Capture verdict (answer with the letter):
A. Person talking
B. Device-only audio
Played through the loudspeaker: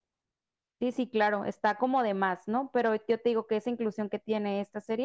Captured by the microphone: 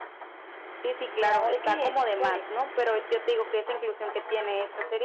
A